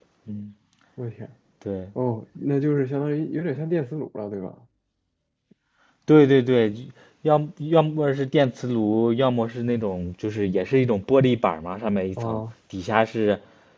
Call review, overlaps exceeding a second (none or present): none